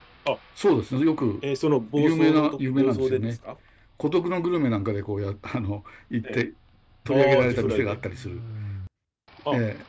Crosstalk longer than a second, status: present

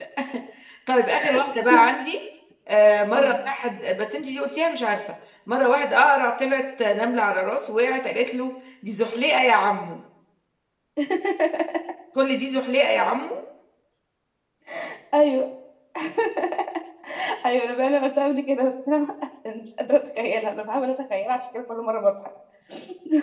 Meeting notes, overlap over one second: none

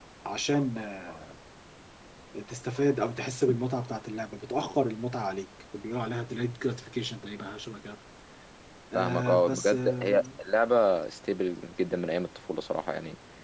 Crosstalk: present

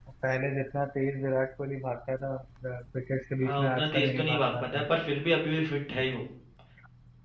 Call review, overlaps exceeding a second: present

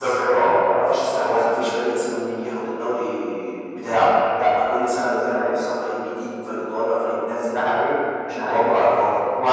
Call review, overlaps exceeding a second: present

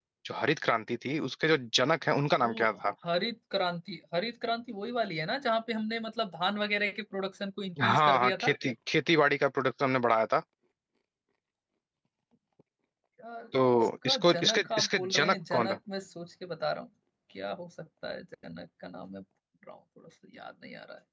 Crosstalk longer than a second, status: present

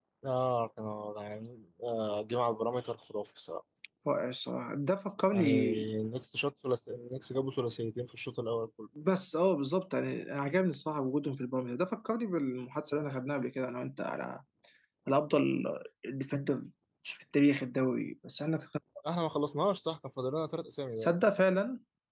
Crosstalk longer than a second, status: none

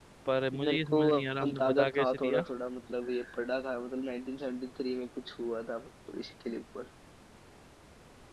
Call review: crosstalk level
present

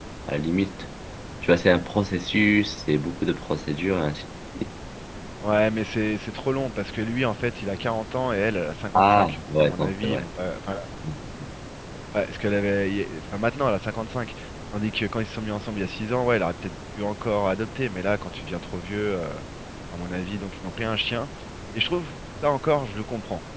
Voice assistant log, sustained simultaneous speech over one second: present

